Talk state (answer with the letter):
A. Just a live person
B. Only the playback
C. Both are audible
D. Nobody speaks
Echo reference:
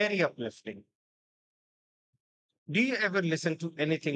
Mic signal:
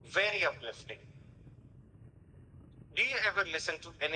B